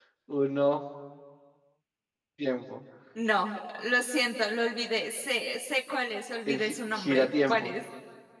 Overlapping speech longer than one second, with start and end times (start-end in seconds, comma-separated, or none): 6.5-7.8